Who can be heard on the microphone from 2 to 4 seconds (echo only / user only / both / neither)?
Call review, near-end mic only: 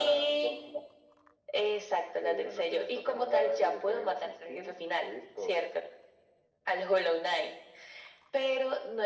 echo only